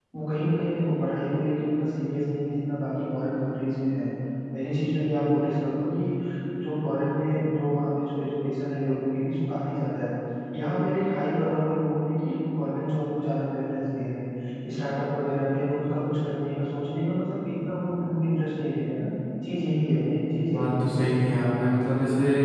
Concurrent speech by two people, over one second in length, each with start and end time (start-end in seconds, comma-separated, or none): none